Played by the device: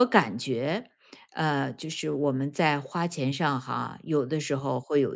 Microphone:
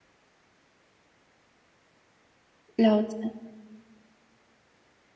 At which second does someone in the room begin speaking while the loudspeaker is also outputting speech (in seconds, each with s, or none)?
2.8 s